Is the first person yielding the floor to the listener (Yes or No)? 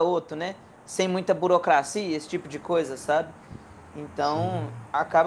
No